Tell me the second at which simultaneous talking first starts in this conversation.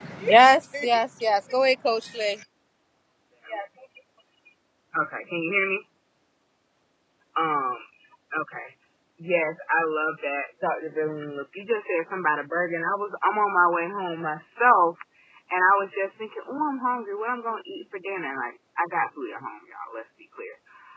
none

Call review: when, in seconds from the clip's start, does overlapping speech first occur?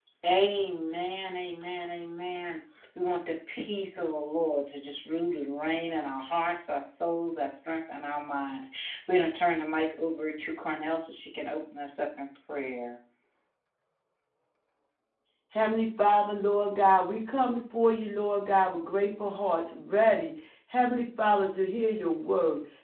none

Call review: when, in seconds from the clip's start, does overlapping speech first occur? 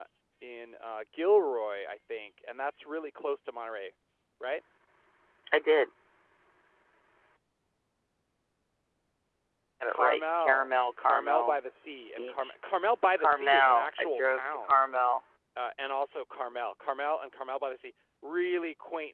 9.9 s

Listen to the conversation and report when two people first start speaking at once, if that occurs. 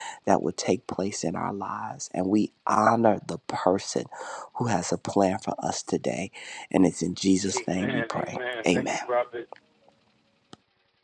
7.5 s

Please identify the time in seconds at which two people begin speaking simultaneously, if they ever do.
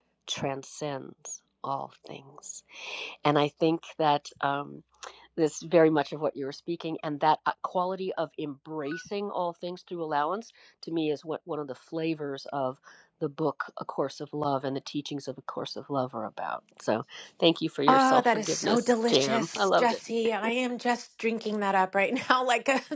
17.9 s

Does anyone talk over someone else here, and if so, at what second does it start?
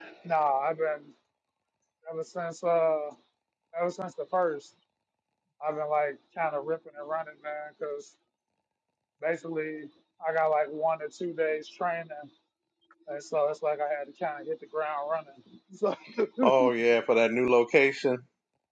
none

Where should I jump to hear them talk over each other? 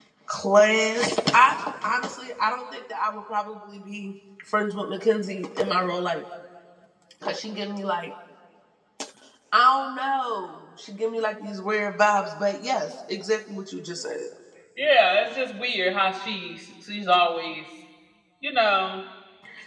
none

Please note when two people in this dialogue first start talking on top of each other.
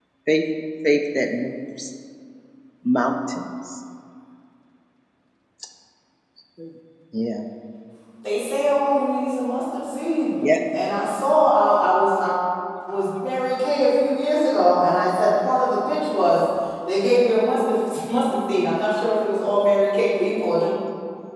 none

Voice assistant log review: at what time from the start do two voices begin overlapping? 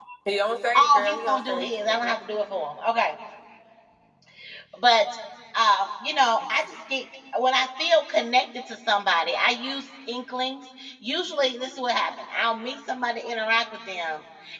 0.7 s

